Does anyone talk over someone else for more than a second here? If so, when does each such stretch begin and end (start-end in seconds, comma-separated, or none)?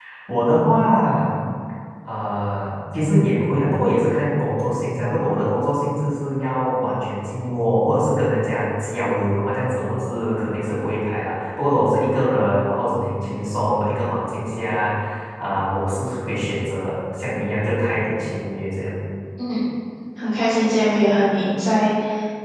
none